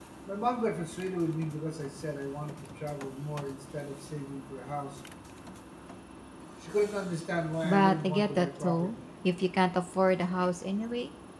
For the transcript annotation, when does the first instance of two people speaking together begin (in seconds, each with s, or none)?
7.6 s